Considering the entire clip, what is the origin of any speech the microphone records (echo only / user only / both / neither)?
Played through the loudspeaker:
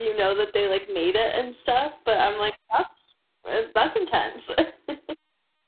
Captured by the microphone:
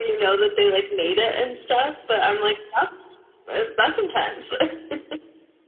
echo only